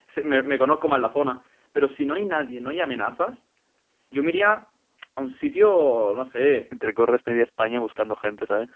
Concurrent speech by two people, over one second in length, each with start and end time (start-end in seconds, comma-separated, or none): none